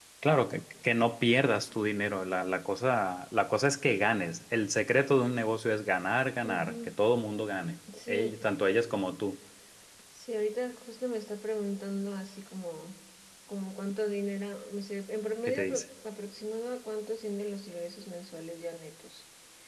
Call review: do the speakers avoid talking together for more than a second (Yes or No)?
Yes